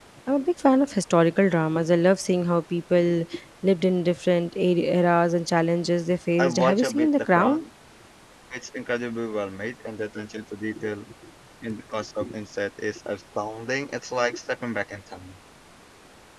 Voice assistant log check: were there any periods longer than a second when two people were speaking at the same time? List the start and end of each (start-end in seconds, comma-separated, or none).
6.4-7.6